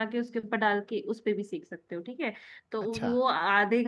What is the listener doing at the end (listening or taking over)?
listening